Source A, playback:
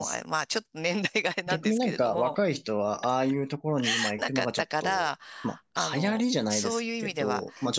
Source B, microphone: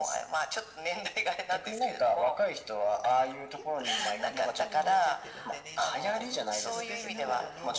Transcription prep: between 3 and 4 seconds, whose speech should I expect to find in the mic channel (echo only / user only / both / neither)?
both